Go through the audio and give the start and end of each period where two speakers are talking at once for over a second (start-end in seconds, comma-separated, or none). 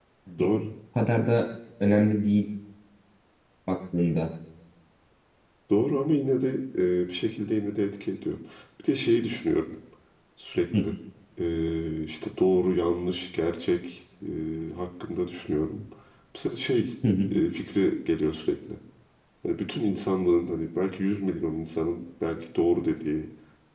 none